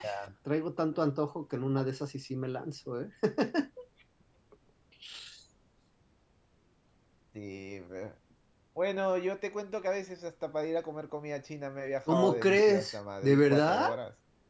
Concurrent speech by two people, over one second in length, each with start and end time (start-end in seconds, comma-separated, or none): 12.1-13.9